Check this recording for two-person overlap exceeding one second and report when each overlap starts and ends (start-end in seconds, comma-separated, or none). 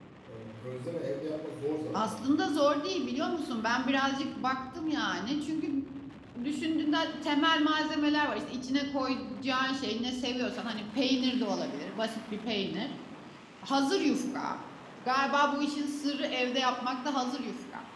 none